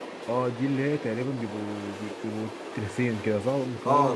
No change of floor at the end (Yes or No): No